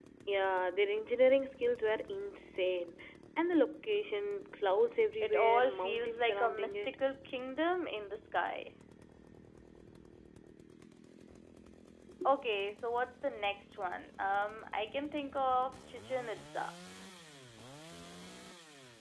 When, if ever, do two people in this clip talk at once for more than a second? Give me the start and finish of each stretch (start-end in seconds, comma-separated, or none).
5.2-7.0